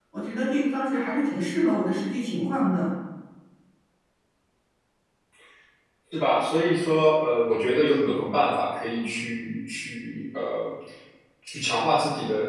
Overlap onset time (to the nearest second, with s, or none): none